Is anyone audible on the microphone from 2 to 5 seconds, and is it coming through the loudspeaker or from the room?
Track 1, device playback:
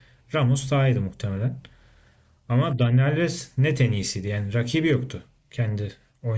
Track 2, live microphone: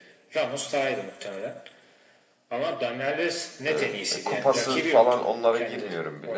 both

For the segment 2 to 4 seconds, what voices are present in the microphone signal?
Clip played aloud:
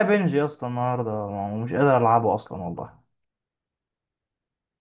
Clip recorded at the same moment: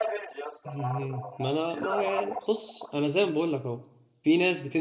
both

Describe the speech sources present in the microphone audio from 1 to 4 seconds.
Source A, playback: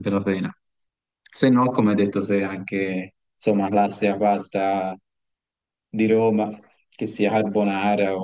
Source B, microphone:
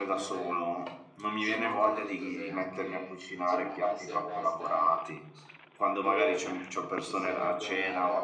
both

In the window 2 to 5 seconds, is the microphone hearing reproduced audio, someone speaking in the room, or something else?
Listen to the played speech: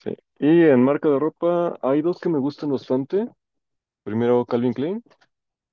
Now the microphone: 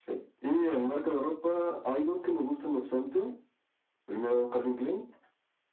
echo only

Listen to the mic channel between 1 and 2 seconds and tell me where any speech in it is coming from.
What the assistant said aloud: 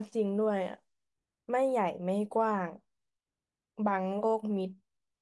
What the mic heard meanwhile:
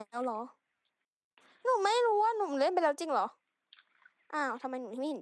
user only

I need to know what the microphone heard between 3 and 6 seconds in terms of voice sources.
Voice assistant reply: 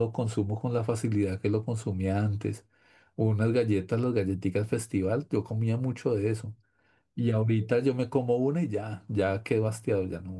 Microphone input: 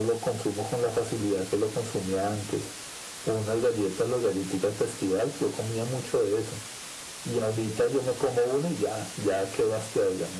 echo only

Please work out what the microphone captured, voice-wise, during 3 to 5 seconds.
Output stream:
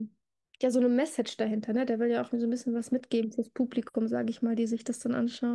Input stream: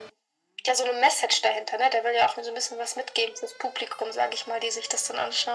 echo only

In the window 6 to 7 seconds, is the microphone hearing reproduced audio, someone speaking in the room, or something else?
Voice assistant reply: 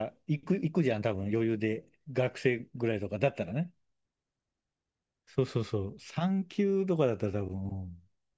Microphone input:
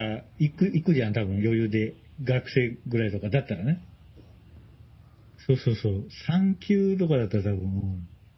echo only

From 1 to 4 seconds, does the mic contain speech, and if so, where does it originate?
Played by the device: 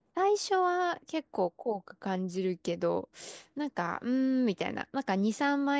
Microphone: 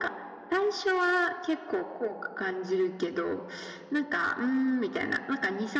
echo only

